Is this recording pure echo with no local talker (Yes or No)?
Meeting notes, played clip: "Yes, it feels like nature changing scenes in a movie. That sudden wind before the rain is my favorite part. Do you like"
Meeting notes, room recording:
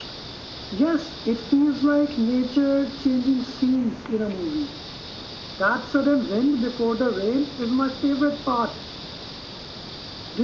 Yes